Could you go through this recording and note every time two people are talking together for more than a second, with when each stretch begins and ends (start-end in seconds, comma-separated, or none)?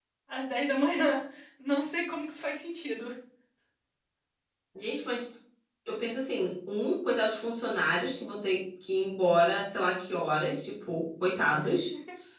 none